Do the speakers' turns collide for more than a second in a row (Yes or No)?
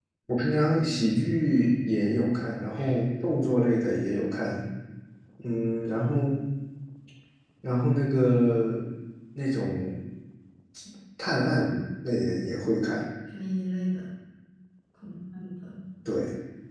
No